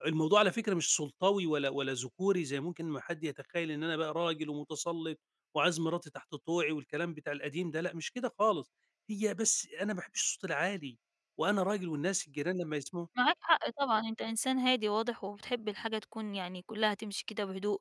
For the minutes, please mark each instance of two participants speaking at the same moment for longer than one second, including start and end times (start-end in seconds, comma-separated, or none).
none